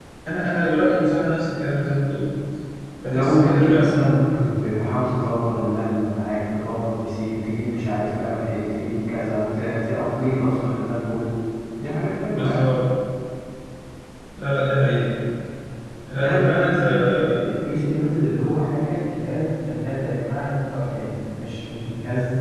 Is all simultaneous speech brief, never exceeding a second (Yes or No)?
No